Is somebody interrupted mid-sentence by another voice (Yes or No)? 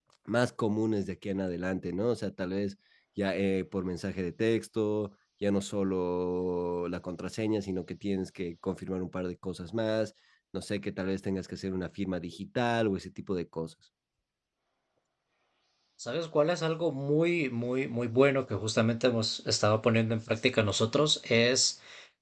No